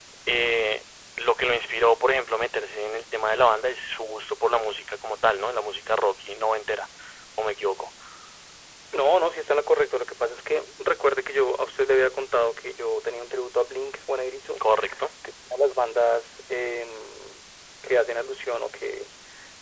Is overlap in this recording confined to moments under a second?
Yes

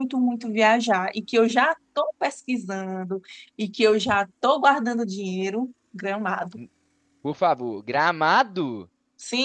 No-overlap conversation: Yes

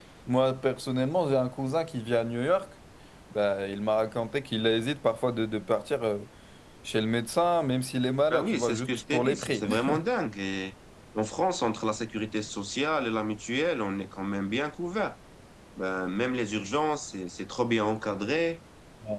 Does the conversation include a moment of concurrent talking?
Yes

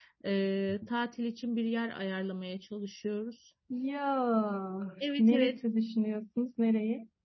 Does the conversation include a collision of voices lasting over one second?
No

